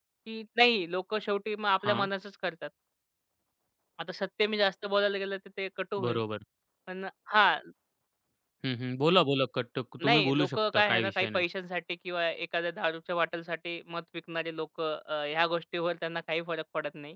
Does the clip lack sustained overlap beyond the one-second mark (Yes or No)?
No